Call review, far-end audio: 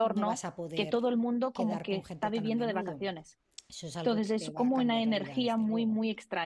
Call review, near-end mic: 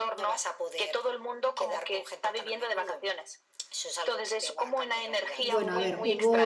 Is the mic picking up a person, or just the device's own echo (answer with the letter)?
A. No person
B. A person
B